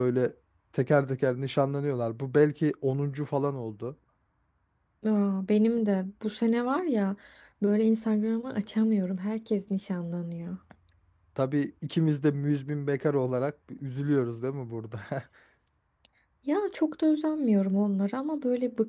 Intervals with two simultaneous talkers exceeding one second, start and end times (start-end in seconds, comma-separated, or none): none